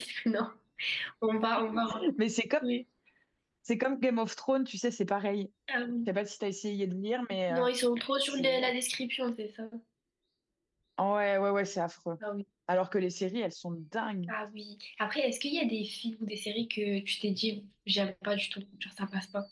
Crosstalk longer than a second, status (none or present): none